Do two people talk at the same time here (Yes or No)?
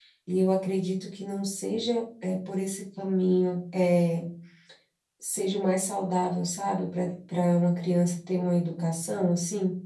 No